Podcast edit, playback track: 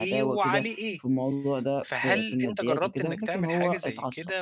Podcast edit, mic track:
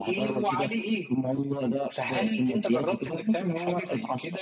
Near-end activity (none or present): none